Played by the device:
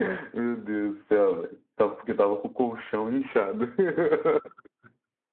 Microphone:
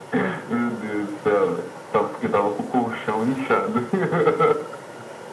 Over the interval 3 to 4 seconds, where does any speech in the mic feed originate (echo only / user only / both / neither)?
echo only